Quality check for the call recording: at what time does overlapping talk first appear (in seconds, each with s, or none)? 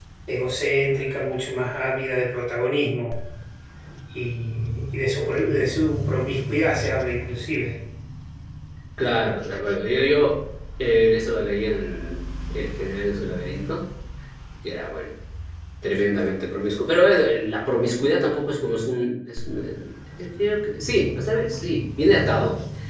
none